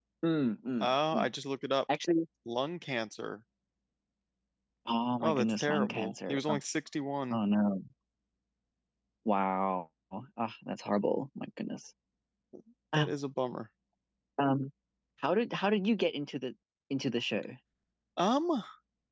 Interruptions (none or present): present